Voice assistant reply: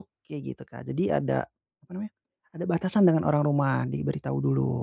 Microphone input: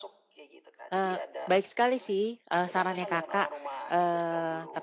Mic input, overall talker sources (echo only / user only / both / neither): both